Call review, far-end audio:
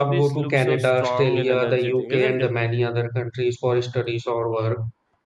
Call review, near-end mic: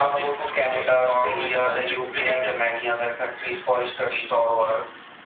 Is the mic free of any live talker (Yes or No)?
Yes